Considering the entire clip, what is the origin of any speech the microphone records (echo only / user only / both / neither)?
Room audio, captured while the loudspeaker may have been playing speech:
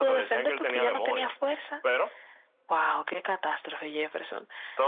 echo only